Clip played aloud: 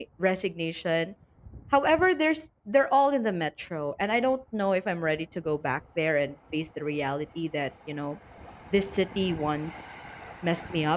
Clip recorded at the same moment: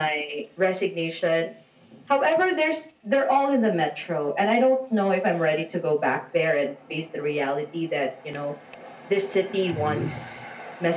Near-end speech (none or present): present